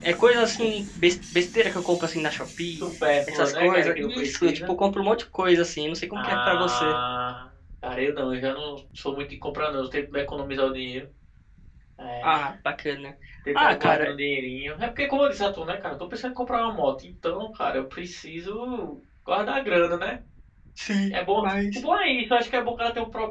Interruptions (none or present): present